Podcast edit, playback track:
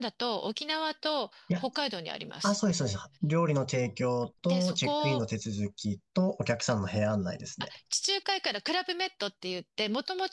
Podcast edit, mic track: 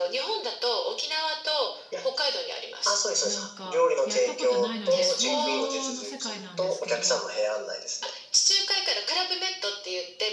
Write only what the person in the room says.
なんか、やったことないので、想像の世界なんですけど、

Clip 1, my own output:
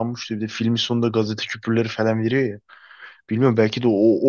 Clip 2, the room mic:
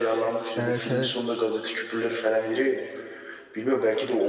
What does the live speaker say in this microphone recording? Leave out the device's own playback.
Evet evet.

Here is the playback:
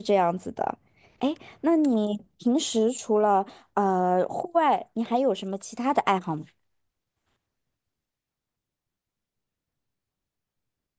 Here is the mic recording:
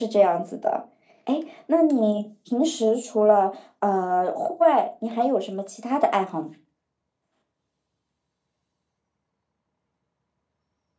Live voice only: none

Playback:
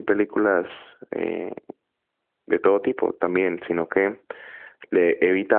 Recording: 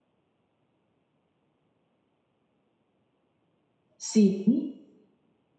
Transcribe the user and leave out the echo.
sí,

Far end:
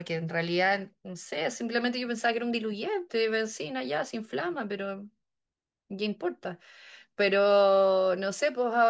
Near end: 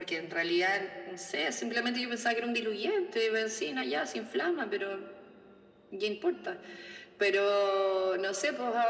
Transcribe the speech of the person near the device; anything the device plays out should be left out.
none

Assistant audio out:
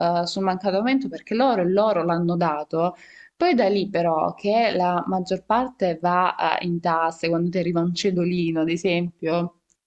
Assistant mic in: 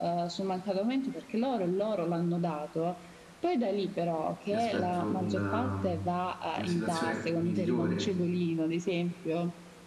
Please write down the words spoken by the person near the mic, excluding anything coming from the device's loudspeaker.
mi aspetto una, una situazione migliore.

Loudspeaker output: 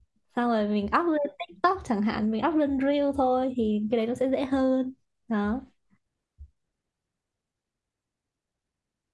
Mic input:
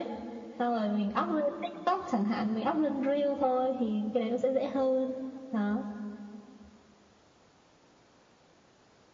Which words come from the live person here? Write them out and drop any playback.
none

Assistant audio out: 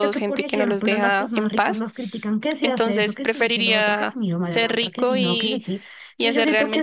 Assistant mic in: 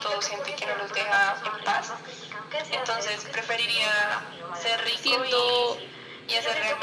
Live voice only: siendo

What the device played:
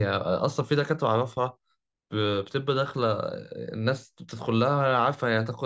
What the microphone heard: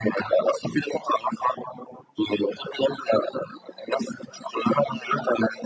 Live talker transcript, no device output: none

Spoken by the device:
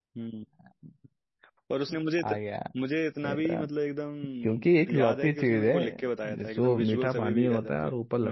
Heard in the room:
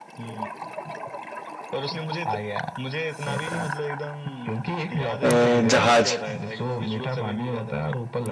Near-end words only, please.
अ, जहाज

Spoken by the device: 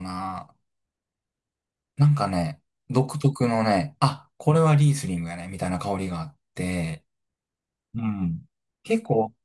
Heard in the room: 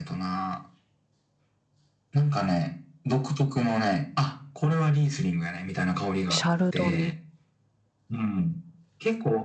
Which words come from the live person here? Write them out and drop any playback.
シャルドネ。

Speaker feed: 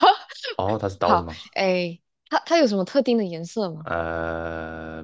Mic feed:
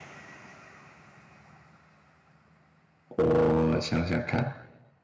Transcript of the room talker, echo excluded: 我想想看，

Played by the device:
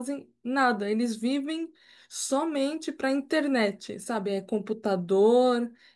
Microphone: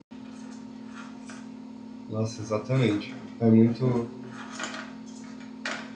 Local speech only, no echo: Nossa, exatamente. É muito,

